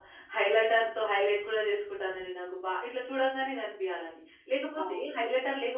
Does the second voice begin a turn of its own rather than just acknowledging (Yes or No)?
No